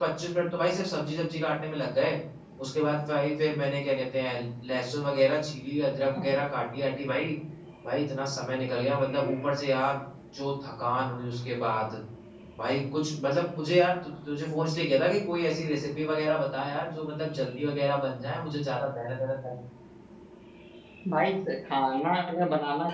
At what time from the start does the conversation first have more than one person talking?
none

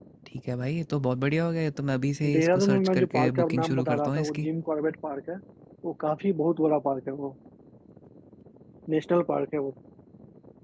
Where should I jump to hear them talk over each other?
2.2 s

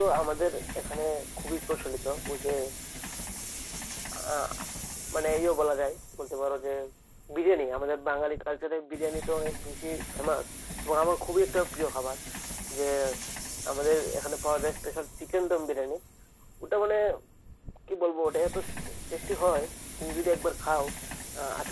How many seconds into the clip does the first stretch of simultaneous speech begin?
none

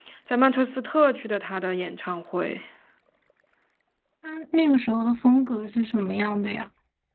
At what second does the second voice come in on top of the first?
none

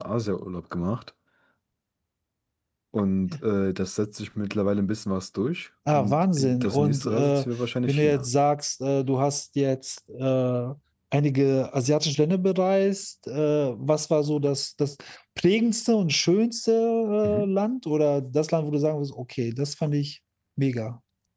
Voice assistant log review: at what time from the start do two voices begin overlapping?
5.9 s

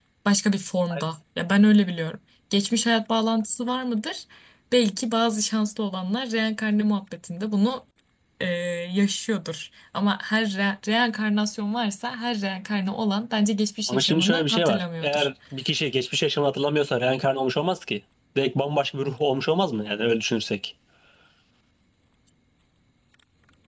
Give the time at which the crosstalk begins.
13.9 s

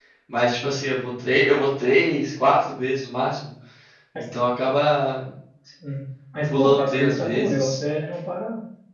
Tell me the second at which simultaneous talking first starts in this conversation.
6.5 s

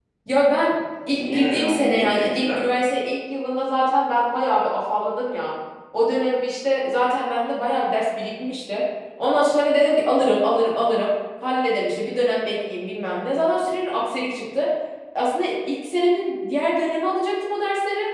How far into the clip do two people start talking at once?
1.1 s

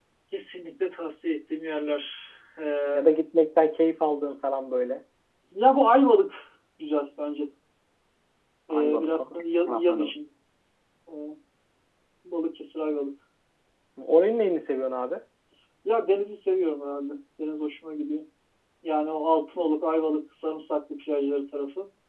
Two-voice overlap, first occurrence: 8.7 s

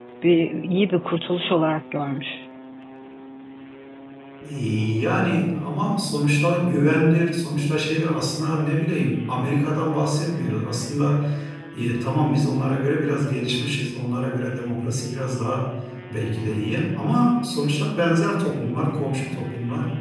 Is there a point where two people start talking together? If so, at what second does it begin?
none

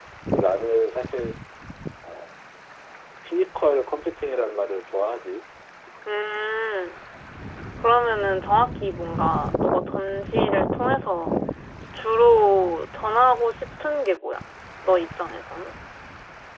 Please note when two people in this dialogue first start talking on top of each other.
none

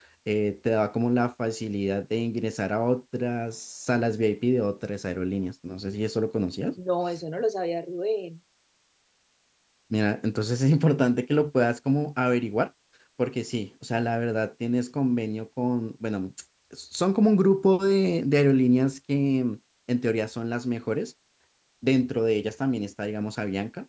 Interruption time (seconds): none

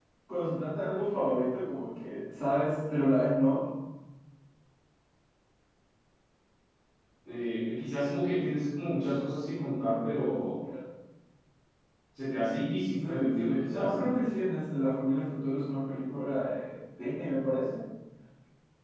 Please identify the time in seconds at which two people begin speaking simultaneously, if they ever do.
12.8 s

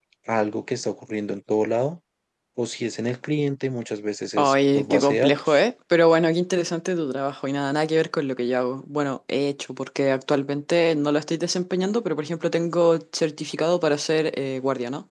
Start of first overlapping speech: 4.4 s

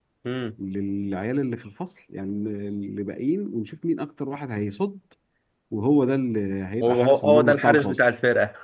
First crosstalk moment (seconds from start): 6.8 s

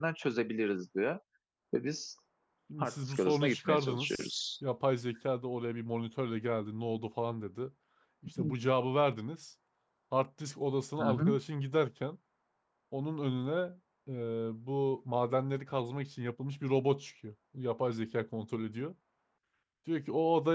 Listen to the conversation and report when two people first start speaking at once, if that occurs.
2.8 s

